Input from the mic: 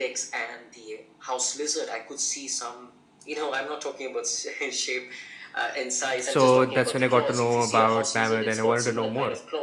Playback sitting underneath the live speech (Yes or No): Yes